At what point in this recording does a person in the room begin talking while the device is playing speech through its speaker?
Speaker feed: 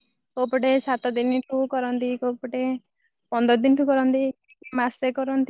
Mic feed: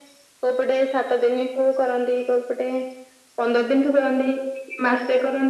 none

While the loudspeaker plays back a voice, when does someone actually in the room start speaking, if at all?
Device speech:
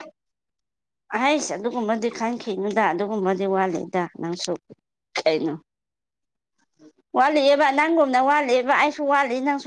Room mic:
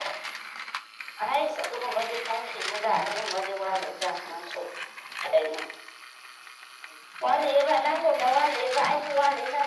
none

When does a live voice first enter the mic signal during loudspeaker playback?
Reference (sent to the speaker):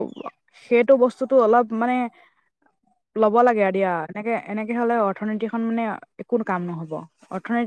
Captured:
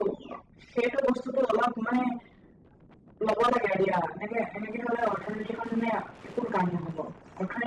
none

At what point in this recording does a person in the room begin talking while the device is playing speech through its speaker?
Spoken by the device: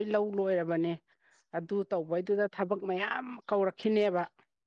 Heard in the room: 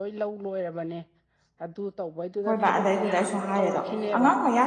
2.5 s

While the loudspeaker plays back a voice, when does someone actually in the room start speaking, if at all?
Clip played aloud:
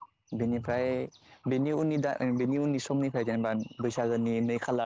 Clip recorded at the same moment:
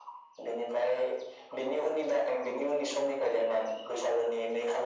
none

